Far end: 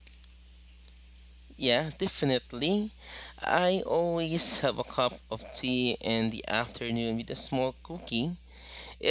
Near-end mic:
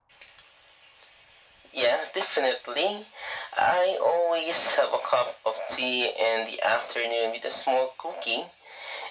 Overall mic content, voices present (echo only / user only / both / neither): echo only